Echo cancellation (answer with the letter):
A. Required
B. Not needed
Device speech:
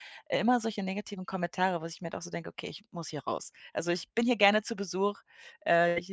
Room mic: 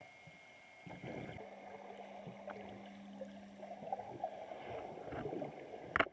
B